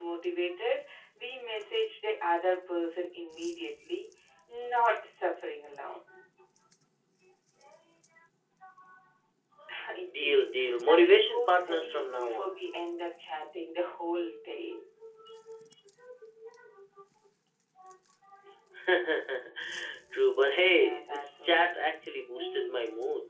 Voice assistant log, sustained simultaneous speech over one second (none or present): present